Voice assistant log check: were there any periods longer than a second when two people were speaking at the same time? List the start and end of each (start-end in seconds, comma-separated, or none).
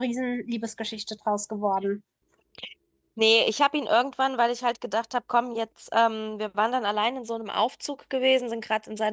none